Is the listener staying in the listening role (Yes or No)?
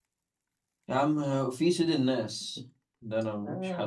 No